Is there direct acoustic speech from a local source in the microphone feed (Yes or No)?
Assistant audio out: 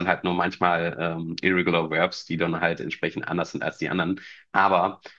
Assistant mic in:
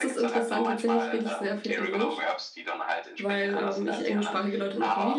Yes